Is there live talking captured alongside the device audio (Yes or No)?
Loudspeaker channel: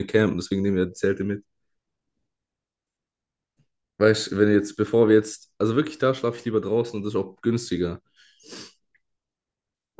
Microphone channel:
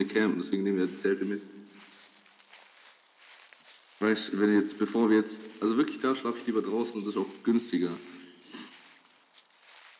No